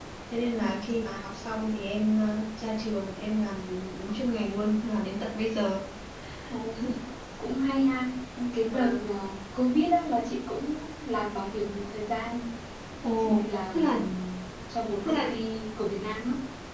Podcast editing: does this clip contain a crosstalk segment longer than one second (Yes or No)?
No